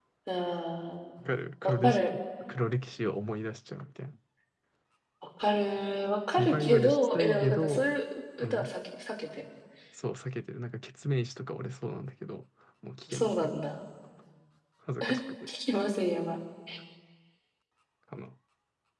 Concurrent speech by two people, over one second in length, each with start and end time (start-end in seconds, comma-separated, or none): 6.4-8.0